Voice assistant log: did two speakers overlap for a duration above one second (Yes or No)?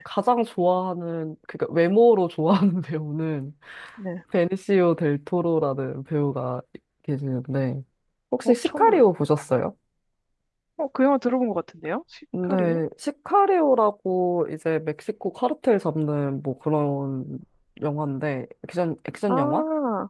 No